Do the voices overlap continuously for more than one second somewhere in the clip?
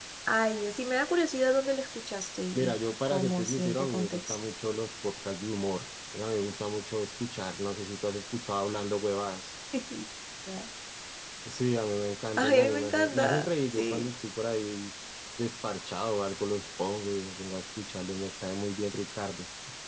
Yes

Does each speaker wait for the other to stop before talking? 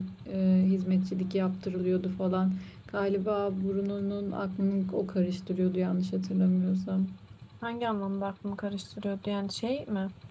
Yes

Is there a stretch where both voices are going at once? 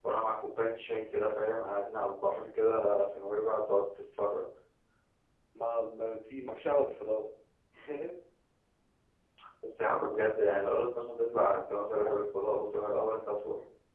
No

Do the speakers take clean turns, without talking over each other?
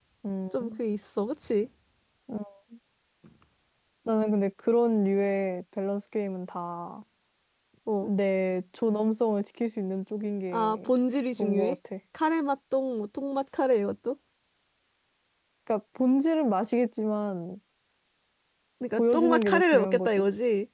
No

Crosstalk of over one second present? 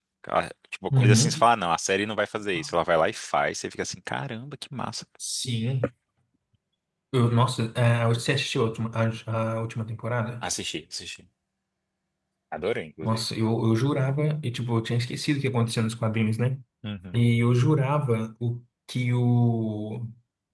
No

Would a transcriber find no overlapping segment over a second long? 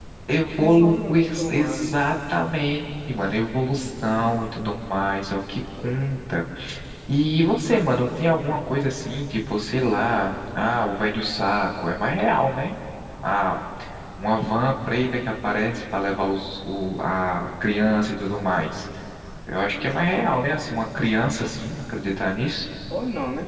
No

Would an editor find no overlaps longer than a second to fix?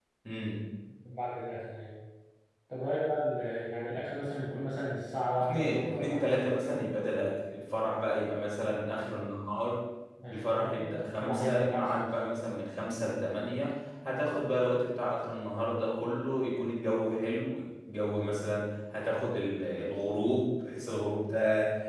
No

